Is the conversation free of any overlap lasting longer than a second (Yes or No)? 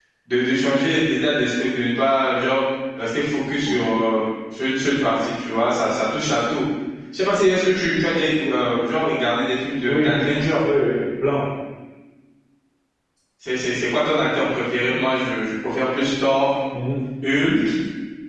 Yes